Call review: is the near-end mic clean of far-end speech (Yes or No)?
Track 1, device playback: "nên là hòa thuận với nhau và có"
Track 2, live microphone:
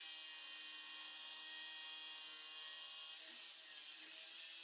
Yes